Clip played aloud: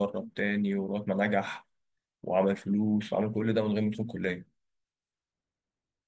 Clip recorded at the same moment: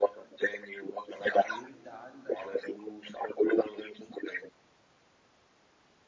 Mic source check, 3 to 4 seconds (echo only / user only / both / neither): echo only